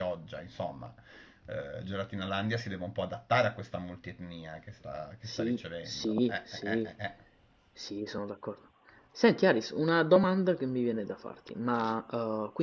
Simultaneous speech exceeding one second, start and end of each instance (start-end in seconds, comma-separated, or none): 5.3-6.9